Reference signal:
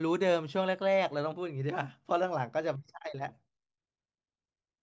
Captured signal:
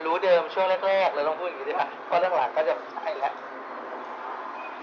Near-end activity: none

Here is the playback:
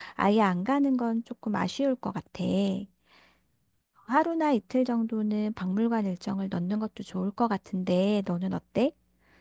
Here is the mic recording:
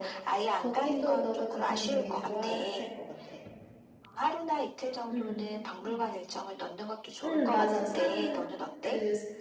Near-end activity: present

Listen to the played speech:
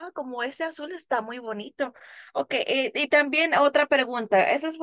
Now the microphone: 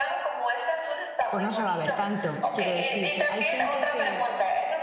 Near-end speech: present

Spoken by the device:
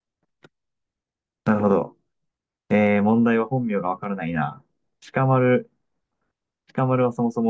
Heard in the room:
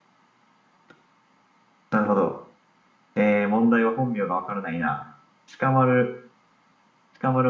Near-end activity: none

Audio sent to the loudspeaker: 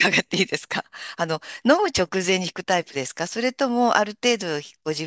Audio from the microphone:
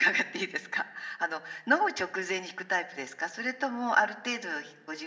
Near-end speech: none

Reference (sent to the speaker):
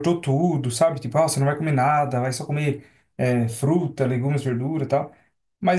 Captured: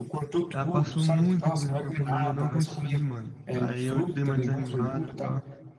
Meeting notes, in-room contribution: present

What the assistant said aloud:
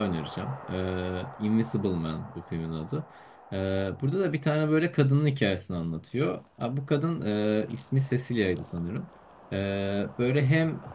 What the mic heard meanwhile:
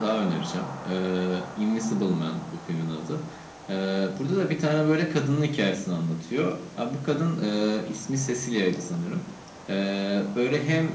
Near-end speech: none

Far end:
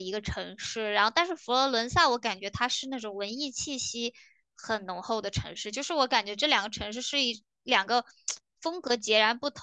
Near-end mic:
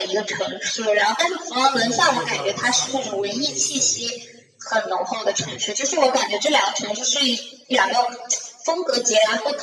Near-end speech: present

